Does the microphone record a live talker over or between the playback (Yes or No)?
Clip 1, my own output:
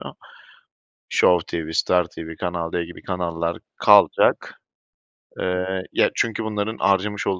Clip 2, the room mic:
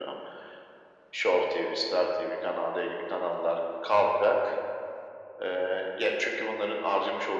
No